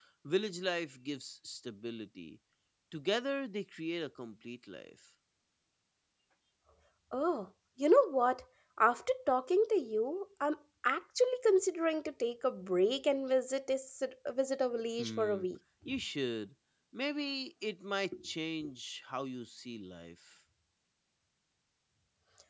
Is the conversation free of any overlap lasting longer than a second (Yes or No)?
Yes